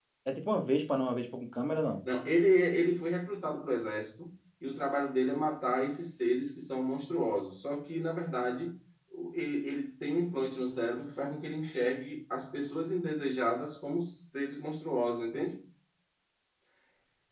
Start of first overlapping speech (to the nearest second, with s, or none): none